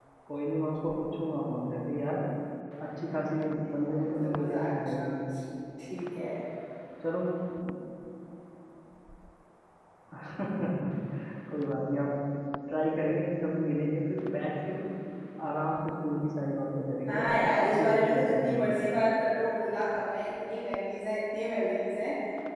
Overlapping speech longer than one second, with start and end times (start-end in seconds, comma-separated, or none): 3.5-5.2, 17.1-18.7